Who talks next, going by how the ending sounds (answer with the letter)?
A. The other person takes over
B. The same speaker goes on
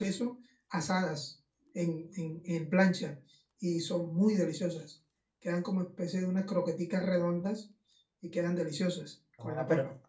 A